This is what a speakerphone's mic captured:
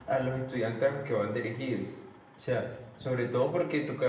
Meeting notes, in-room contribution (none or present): none